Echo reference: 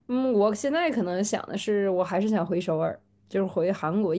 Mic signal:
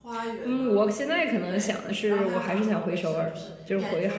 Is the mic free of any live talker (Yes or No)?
No